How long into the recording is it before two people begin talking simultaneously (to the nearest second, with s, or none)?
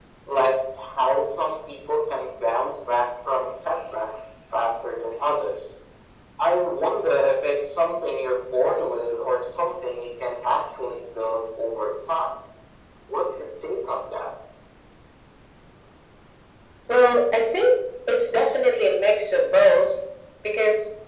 none